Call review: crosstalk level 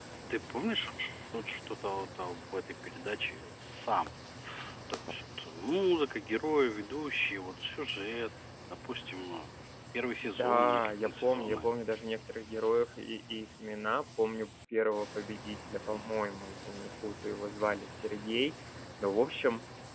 present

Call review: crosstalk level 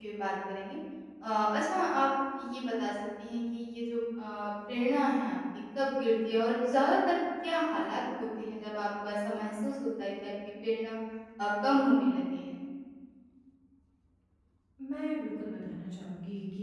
none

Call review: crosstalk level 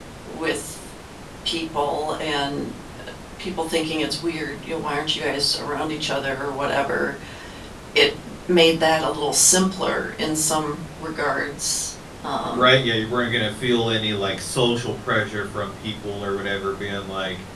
none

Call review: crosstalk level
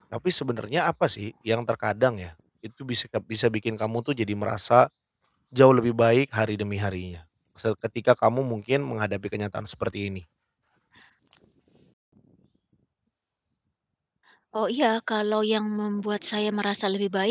none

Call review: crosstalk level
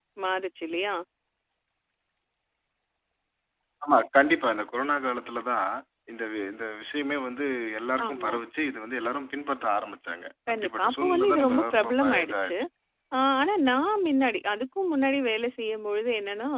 present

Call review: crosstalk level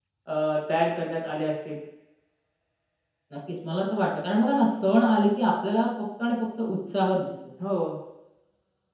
none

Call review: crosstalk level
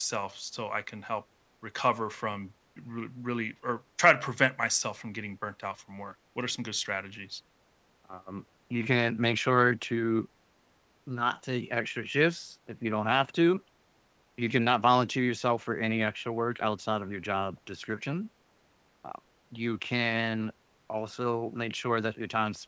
none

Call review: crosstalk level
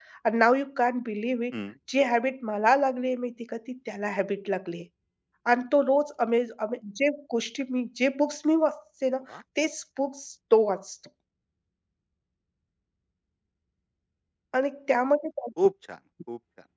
none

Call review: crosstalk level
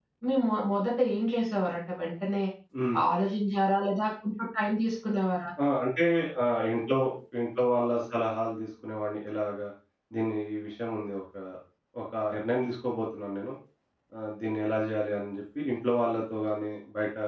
none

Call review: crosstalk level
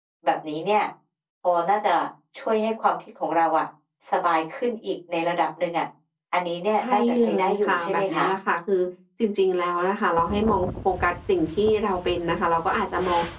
present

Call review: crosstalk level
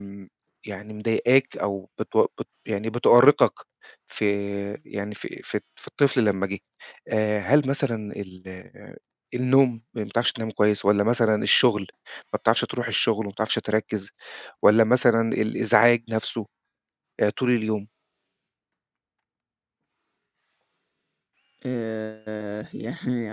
none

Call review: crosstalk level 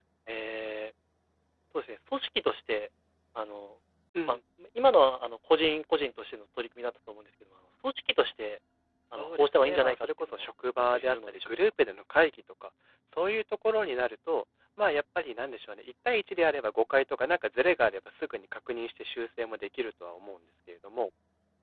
present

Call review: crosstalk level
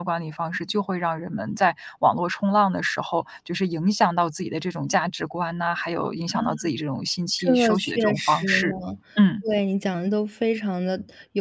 present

